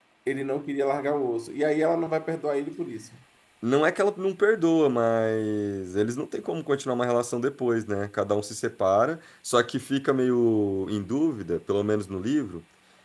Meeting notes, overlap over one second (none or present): none